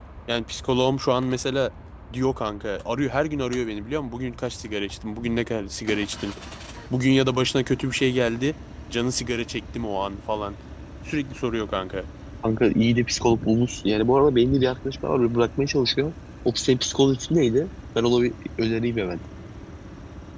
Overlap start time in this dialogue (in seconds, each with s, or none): none